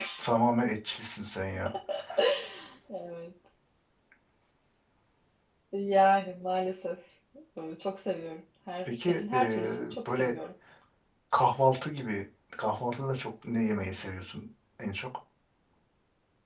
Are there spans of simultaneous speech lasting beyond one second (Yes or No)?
Yes